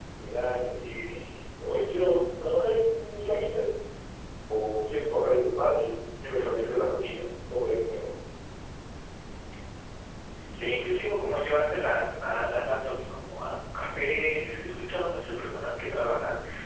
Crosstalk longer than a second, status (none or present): none